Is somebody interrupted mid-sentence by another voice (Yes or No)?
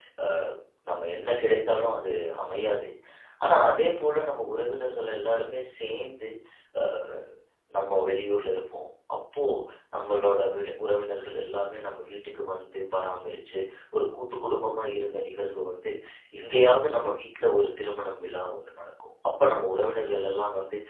No